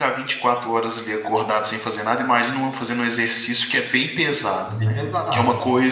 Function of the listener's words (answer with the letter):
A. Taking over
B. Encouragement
B